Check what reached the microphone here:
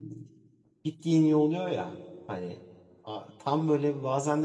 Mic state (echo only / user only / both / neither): user only